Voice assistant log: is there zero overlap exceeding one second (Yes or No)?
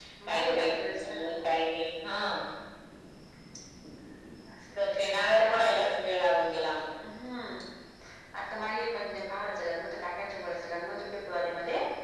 No